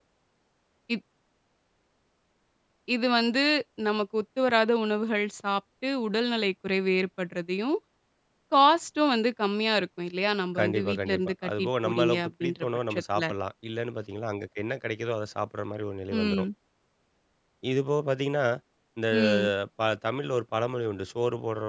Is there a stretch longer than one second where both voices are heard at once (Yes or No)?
Yes